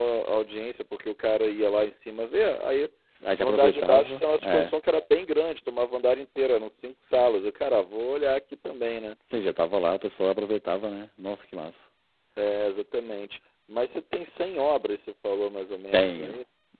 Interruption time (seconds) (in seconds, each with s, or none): 3.4 s